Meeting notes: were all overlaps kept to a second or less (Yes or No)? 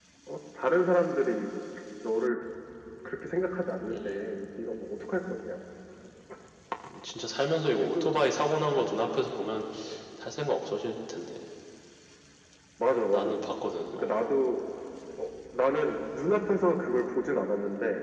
Yes